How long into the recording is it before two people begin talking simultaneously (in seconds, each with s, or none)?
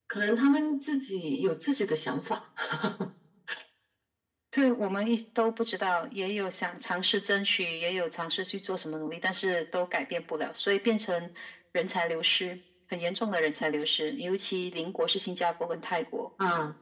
none